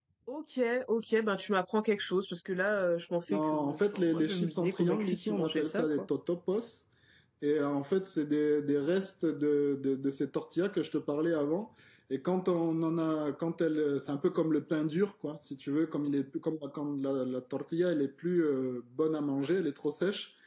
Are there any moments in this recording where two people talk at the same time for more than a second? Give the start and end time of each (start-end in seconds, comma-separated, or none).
3.3-6.1